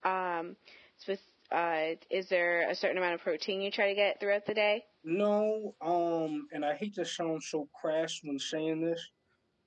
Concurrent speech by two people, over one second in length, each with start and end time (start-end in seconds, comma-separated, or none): none